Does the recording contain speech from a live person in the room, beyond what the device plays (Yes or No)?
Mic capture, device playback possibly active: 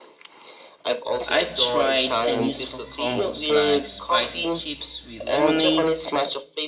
Yes